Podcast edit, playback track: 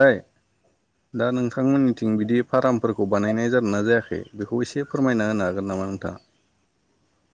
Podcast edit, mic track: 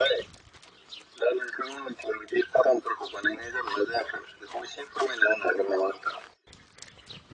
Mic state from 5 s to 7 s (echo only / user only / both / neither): echo only